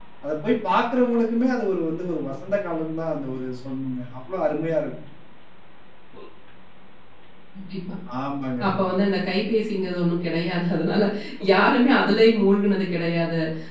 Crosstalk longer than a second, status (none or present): none